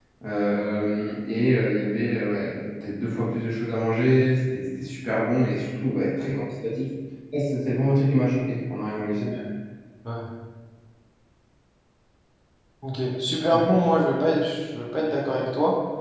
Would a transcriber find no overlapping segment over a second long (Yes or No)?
Yes